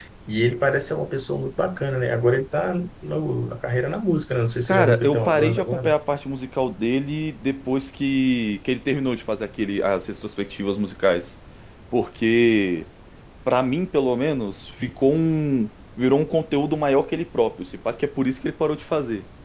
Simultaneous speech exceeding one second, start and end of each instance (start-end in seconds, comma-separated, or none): 4.7-5.9